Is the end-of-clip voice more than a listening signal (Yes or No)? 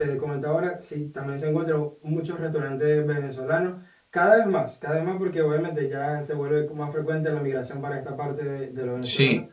Yes